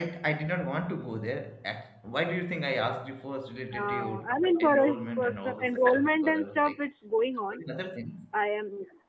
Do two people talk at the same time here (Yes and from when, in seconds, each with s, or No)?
Yes, from 3.8 s